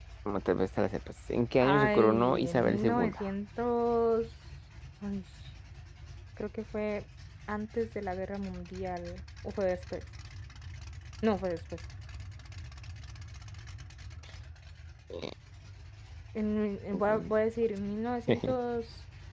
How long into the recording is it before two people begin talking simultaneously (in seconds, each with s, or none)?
1.6 s